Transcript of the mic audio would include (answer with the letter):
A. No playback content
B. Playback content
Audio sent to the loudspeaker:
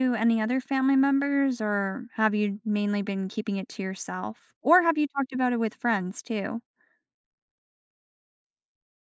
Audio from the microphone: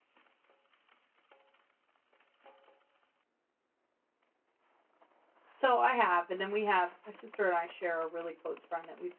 A